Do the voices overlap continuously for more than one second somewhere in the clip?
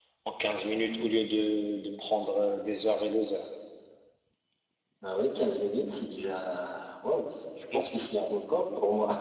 No

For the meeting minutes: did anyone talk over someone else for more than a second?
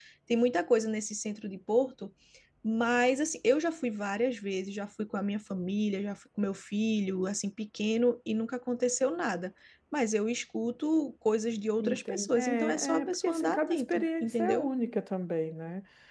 Yes, from 11.8 s

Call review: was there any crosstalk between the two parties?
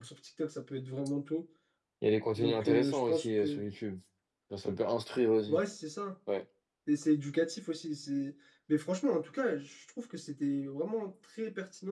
Yes, from 2.4 s

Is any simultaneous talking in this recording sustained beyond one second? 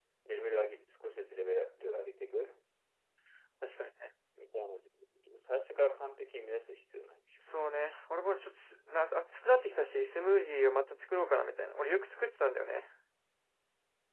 No

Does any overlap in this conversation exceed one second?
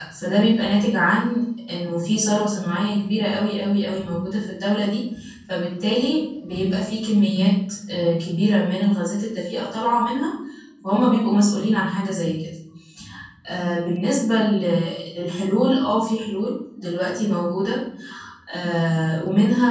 No

